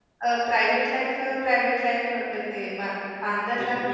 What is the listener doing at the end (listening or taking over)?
listening